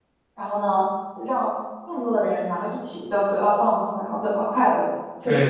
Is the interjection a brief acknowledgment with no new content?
No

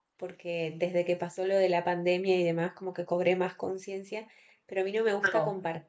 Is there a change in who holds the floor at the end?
No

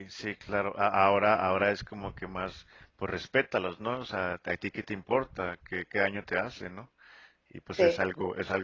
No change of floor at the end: Yes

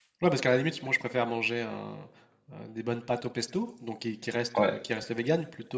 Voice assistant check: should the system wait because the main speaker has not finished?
Yes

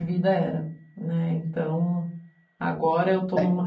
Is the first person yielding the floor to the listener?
No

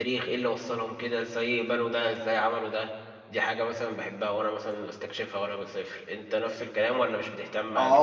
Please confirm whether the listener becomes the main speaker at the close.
Yes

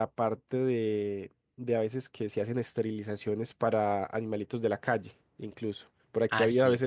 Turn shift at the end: No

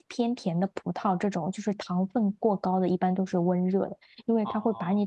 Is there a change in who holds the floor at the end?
No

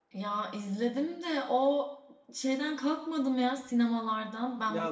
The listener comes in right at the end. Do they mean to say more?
Yes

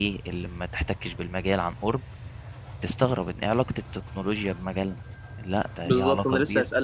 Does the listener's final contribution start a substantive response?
Yes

